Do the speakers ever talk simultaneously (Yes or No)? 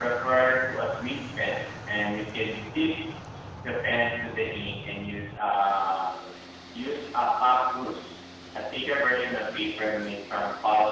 No